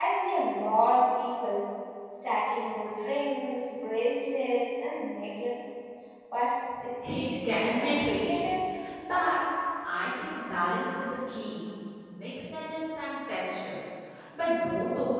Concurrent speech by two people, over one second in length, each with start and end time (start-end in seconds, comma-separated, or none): 7.1-8.5